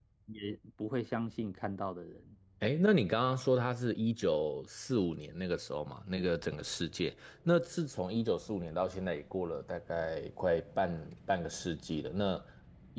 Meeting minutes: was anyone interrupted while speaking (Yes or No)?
No